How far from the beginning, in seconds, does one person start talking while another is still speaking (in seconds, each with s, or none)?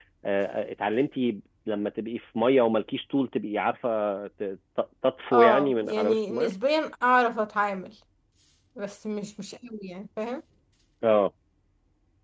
5.3 s